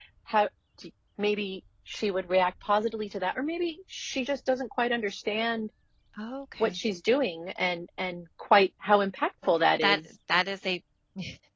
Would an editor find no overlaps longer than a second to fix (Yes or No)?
Yes